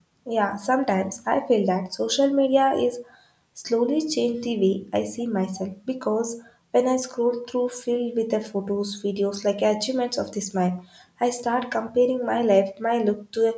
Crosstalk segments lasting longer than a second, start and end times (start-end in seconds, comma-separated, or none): none